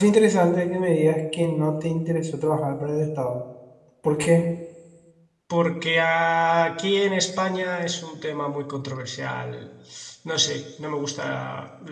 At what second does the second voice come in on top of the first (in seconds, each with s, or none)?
none